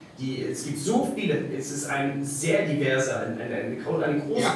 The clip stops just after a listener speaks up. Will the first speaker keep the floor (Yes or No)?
No